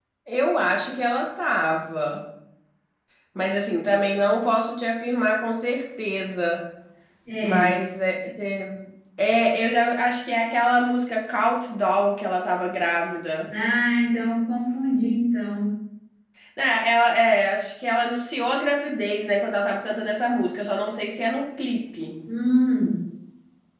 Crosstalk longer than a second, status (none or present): none